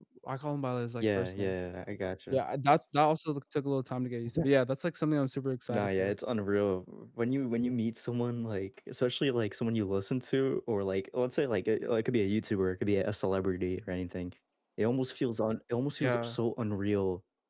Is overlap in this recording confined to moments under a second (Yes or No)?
Yes